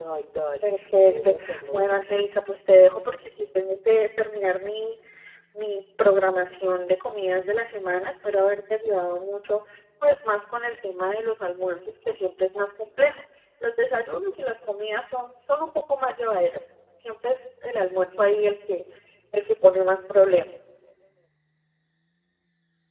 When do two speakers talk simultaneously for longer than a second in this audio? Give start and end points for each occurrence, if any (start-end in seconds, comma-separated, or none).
0.6-2.2